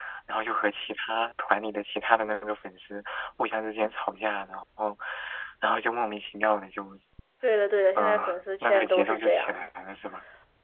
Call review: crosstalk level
present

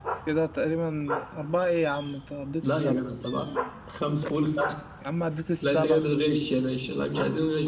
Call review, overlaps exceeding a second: none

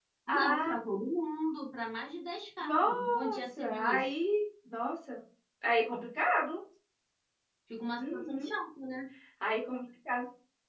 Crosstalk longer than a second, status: present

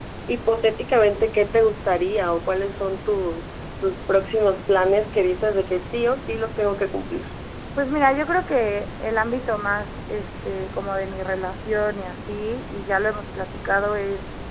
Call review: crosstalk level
none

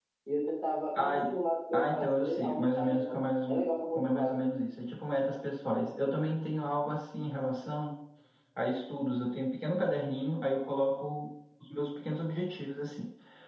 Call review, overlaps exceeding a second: present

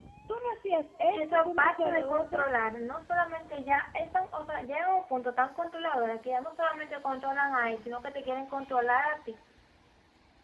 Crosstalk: present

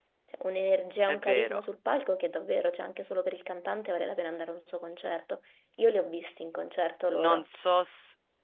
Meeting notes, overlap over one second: none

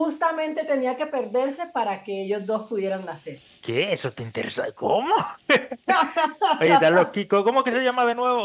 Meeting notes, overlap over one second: none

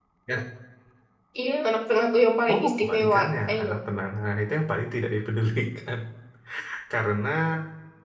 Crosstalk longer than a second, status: present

